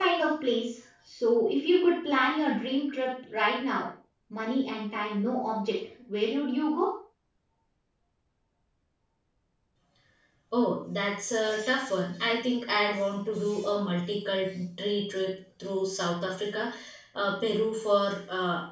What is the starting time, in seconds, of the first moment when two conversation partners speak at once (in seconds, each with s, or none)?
none